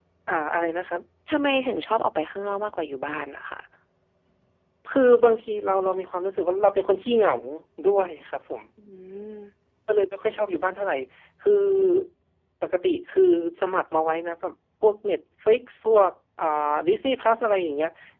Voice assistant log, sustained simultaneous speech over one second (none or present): none